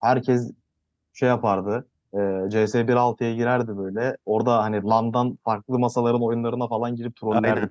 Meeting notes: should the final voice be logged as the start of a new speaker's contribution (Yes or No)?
Yes